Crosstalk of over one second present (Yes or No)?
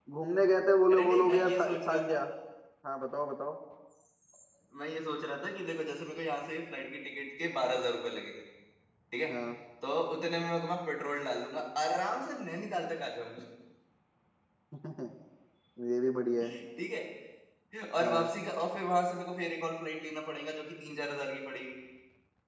Yes